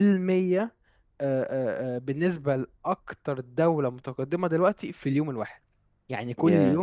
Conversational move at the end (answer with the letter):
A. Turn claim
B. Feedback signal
B